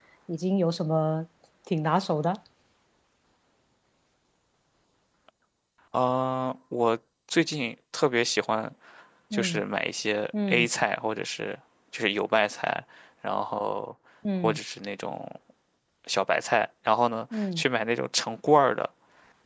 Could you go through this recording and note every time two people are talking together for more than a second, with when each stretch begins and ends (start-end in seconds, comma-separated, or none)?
none